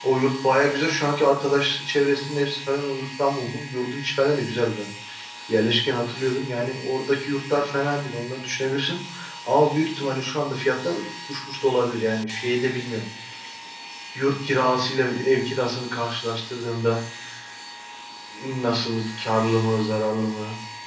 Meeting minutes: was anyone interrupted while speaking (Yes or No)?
No